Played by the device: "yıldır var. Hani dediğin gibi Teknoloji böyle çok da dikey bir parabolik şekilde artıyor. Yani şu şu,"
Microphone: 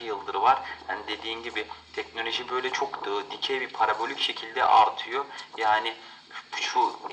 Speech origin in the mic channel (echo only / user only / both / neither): echo only